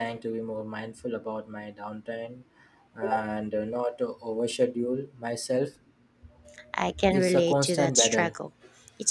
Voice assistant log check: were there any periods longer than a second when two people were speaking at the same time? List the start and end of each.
7.1-8.3

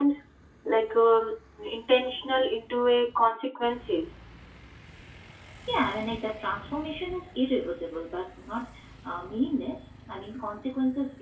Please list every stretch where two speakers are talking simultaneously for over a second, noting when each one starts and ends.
none

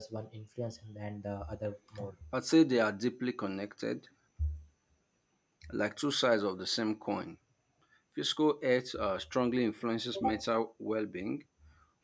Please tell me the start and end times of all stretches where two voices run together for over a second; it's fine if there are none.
none

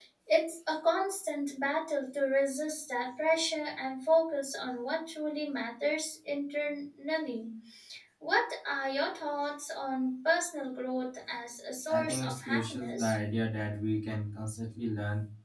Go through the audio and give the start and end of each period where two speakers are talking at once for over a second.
11.9-13.2

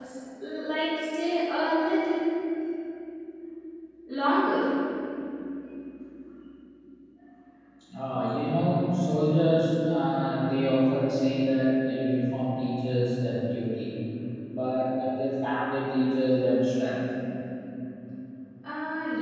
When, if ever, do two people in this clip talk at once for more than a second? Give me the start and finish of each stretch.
none

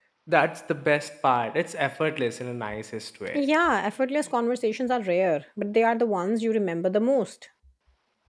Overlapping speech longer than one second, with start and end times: none

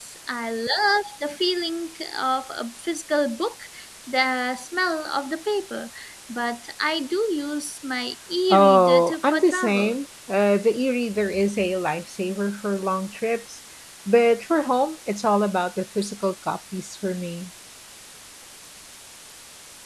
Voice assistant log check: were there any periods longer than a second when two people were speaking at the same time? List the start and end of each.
8.5-10.0

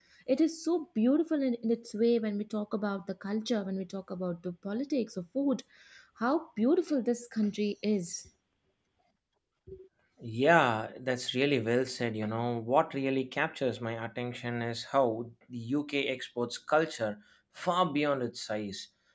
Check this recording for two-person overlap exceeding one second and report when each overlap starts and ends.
none

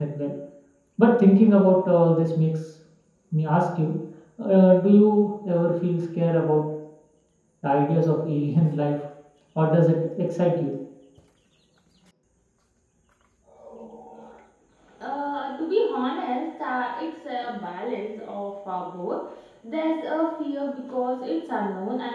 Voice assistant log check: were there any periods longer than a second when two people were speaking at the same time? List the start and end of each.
none

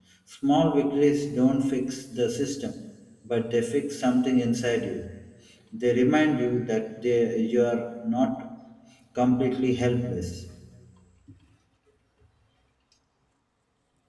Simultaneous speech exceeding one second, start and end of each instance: none

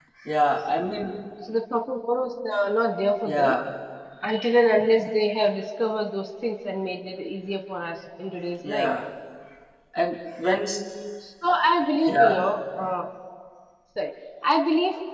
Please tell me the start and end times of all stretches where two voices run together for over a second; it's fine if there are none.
none

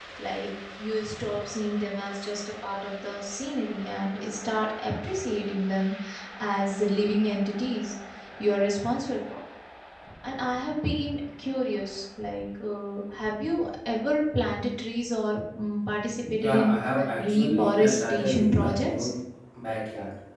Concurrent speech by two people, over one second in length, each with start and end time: 17.2-19.1

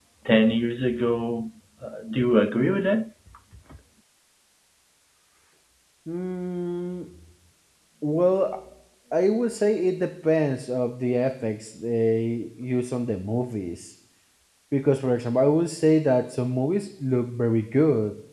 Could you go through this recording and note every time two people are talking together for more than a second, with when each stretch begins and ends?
none

